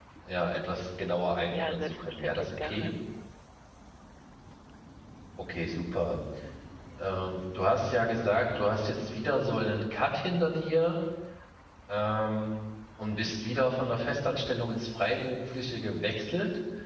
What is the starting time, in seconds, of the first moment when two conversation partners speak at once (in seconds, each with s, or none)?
1.5 s